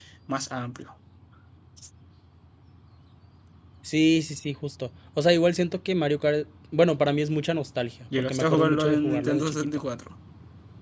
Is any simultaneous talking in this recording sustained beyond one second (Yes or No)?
Yes